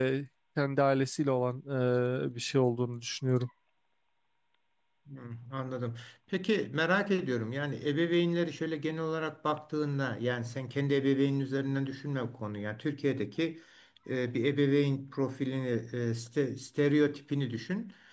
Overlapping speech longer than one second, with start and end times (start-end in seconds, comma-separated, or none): none